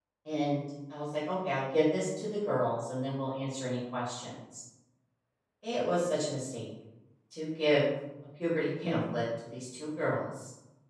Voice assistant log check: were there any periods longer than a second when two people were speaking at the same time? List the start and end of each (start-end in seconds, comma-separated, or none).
none